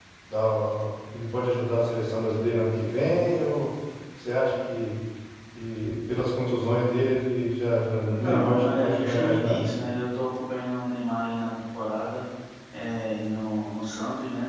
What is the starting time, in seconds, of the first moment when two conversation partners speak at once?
8.0 s

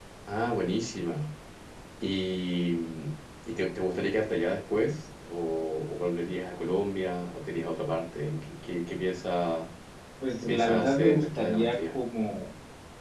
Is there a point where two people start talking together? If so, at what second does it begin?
10.4 s

